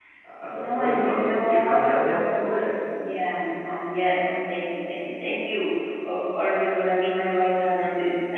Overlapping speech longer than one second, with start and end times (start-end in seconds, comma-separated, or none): 0.5-2.5